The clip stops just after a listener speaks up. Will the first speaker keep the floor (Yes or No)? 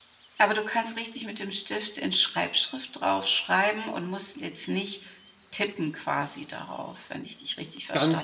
No